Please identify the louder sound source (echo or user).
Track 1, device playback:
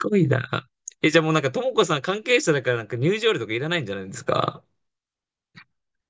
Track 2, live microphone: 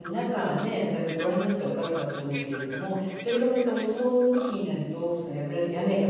user